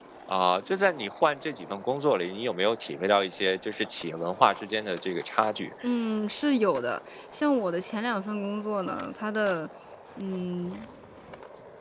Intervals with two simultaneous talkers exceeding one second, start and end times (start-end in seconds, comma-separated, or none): none